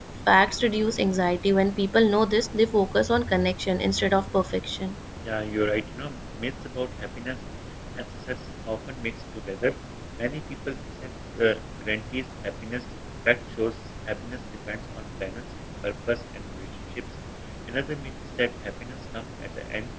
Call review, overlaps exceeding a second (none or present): none